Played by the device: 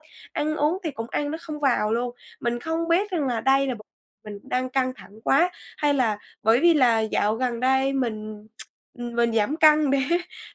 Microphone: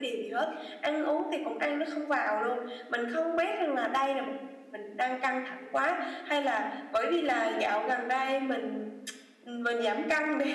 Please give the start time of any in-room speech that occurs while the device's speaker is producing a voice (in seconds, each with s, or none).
none